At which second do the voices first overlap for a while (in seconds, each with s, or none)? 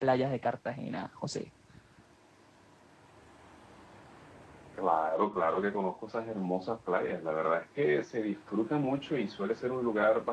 none